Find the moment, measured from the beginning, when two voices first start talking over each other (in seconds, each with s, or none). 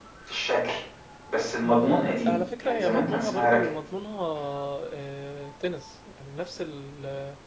1.6 s